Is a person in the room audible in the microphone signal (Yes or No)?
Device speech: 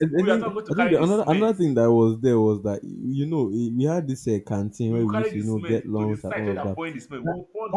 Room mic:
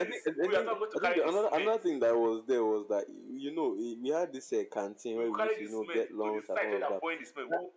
No